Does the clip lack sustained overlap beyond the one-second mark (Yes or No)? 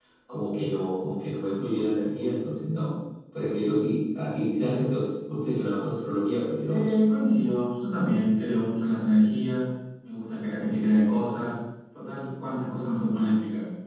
Yes